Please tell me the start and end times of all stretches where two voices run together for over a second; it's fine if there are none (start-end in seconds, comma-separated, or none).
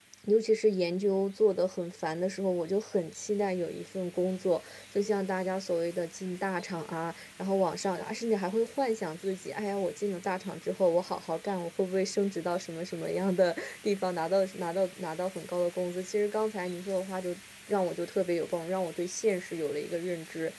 none